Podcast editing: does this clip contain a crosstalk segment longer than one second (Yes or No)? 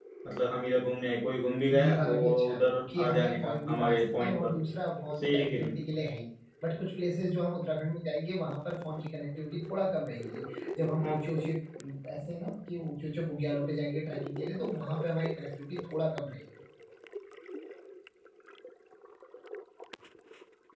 Yes